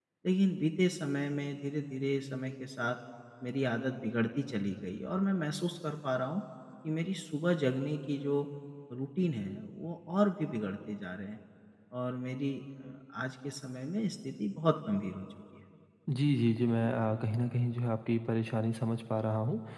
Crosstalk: none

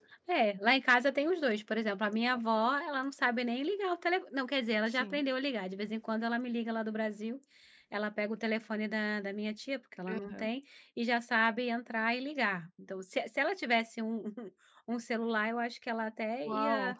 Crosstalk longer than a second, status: none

